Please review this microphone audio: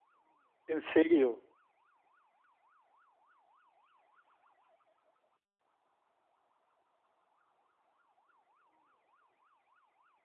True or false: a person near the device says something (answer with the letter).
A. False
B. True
B